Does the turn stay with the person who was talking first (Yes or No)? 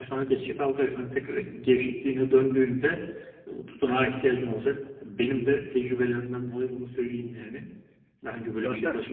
Yes